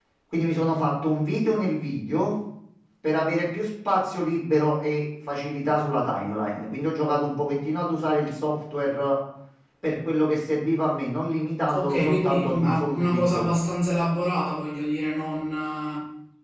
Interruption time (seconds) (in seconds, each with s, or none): 11.7 s